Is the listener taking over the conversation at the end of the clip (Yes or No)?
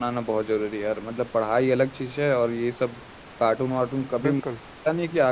No